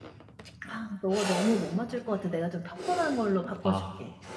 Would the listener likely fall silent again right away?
No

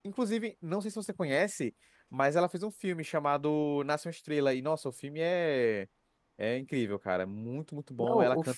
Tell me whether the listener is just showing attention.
No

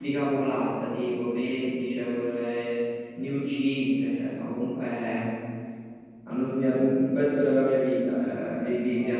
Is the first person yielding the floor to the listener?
No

